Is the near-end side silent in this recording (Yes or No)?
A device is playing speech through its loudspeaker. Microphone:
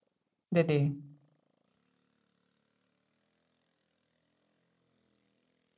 No